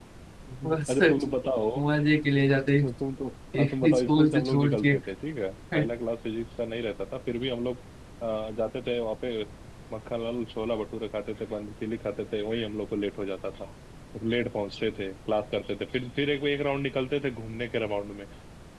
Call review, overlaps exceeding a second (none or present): present